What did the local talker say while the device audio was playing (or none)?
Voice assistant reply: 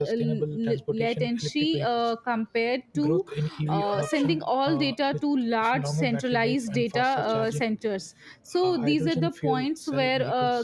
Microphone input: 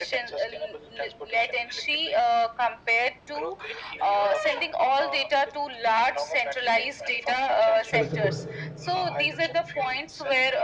that is the goal